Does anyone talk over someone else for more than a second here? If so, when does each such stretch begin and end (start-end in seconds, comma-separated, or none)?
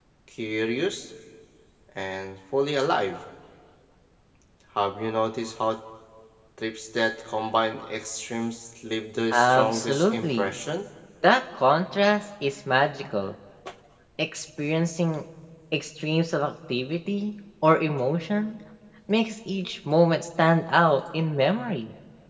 9.3-10.5